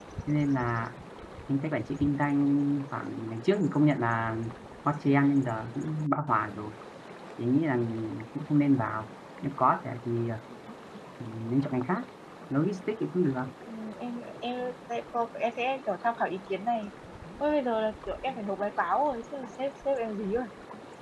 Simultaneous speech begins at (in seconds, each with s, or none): none